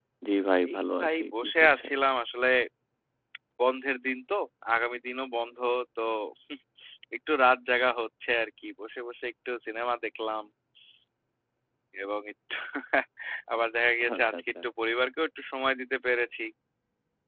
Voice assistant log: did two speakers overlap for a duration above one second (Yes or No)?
Yes